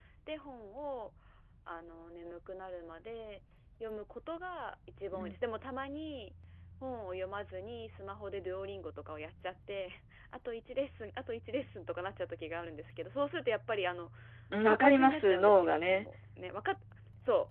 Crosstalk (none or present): present